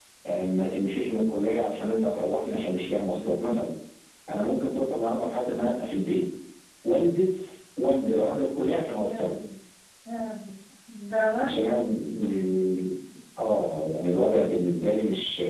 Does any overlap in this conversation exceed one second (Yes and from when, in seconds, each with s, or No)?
No